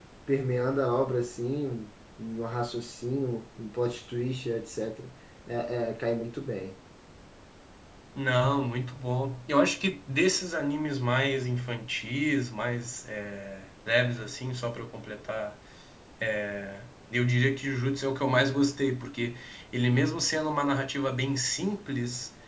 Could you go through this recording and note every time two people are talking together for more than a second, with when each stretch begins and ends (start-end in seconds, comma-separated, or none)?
none